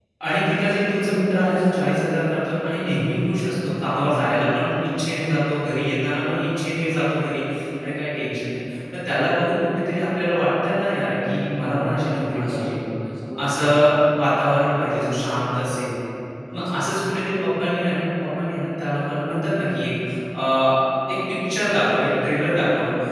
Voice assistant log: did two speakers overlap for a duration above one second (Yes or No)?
No